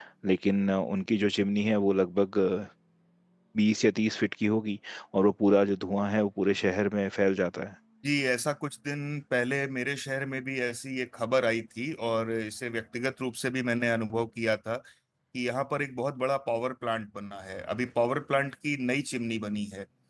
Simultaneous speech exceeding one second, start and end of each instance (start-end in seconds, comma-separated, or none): none